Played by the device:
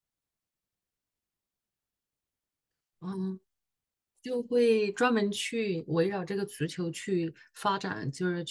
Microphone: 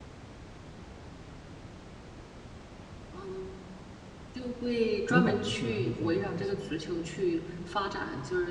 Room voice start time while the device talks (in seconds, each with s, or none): 5.1 s